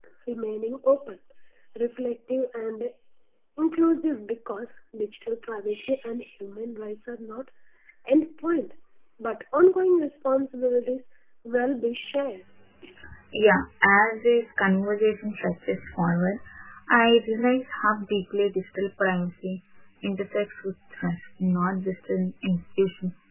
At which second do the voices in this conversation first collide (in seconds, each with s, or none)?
none